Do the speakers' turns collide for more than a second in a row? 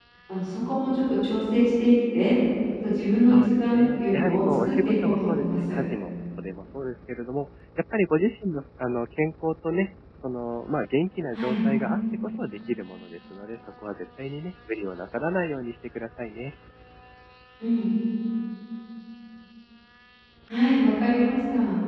Yes, from 3.3 s

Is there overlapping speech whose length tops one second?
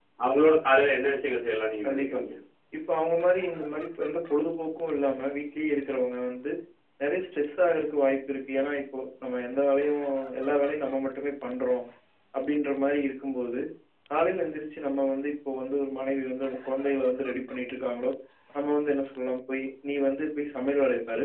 No

